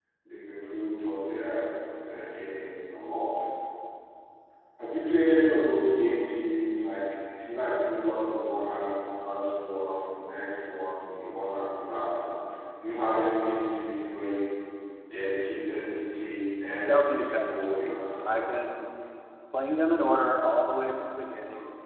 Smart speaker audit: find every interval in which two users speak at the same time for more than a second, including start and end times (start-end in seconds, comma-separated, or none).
16.8-18.5